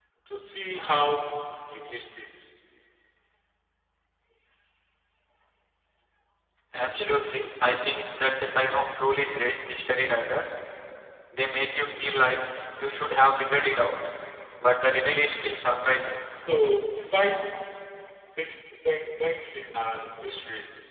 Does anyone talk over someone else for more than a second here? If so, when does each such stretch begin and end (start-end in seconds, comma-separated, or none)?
none